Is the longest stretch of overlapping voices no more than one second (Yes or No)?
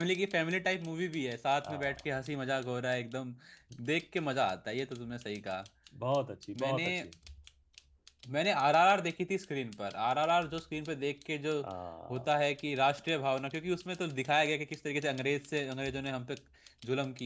Yes